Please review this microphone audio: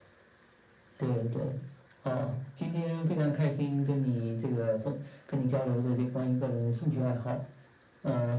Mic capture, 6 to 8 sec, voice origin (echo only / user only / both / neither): echo only